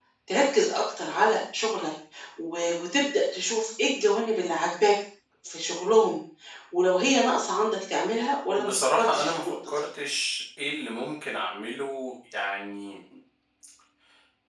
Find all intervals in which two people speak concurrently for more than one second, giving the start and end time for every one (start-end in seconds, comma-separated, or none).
8.6-9.8